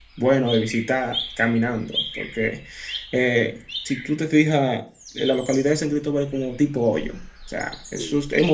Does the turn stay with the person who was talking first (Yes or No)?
Yes